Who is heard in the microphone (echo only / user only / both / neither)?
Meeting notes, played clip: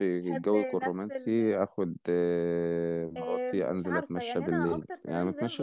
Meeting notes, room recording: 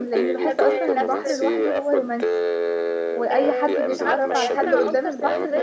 both